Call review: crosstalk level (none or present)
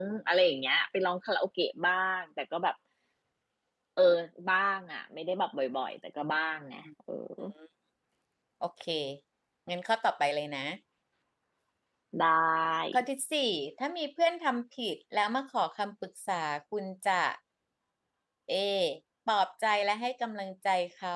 none